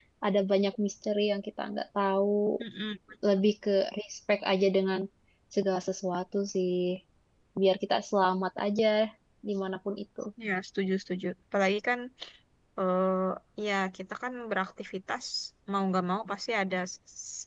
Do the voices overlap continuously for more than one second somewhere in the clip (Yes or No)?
No